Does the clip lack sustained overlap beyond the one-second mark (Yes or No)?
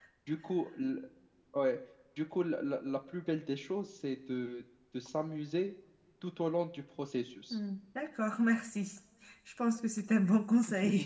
Yes